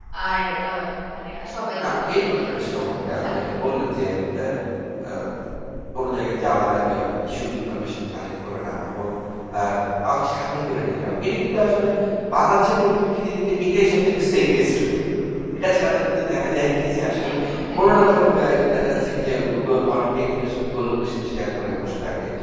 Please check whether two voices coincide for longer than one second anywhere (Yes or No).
Yes